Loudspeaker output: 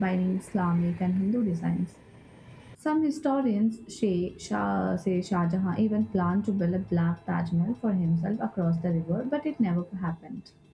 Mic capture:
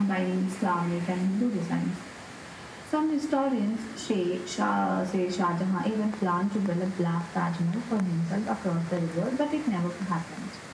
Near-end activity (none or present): none